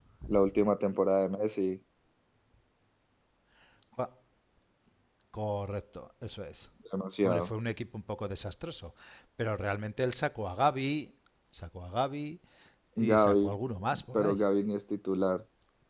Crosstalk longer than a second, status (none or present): none